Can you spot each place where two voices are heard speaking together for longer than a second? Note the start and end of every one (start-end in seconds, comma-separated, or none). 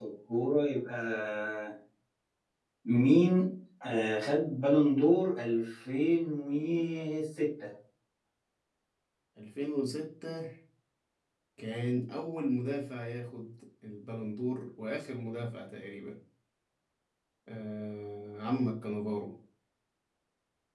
none